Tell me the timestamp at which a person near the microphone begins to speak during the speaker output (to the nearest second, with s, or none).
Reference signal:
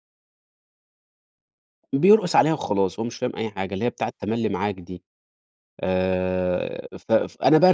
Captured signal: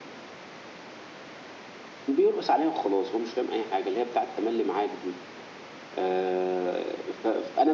none